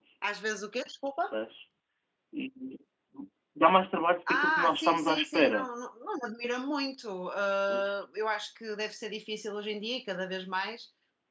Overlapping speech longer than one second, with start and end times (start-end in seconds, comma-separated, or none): 4.3-5.7